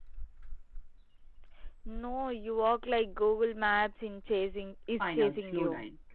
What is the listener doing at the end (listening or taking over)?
taking over